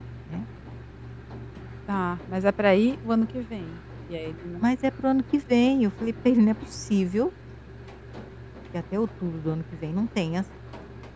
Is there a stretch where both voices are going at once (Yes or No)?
No